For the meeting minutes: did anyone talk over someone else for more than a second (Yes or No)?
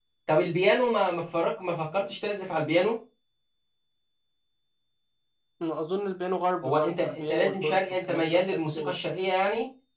Yes